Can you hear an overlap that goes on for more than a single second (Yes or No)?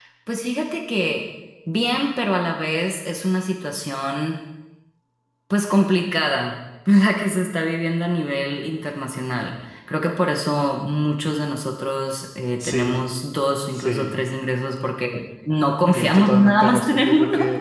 Yes